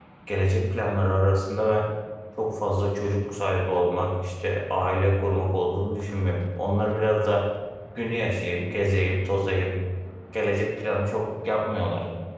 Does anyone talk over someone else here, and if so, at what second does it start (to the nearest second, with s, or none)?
none